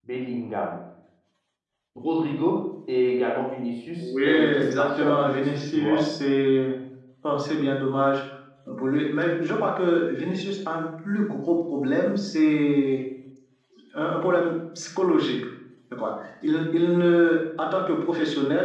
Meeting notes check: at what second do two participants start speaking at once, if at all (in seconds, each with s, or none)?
4.0 s